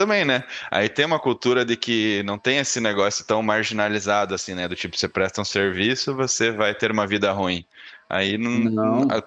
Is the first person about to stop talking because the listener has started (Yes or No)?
No